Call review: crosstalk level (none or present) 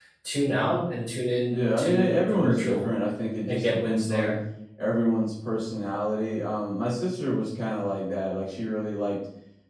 present